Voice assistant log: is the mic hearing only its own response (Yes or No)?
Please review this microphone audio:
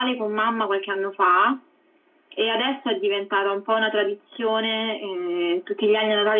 Yes